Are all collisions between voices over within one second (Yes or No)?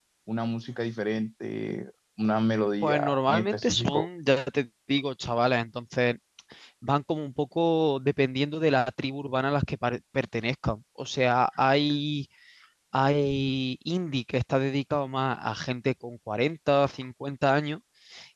No